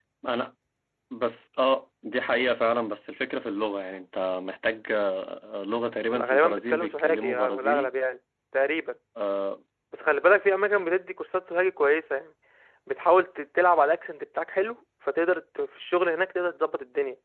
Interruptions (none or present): present